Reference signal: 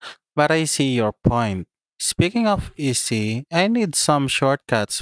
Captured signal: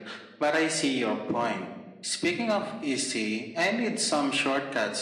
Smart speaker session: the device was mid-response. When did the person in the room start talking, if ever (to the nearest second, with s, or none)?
none